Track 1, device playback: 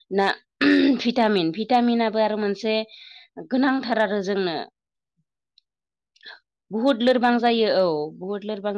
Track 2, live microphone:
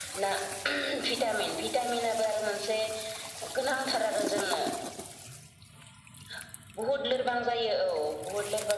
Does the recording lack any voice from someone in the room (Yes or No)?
Yes